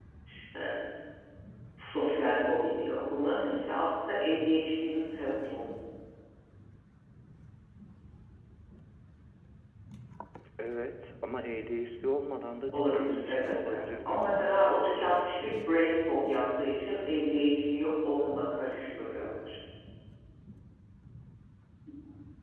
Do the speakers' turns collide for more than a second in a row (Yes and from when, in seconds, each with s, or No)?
Yes, from 12.7 s